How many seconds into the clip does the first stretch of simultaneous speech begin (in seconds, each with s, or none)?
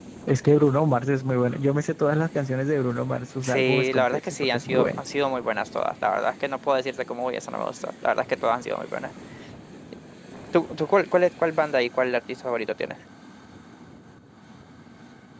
3.4 s